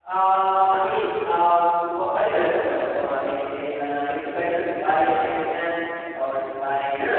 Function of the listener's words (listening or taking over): taking over